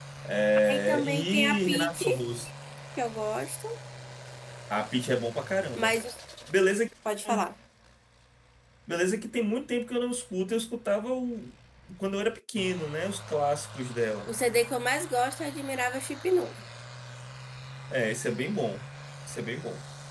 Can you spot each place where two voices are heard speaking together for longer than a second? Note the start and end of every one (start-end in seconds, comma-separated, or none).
0.7-2.1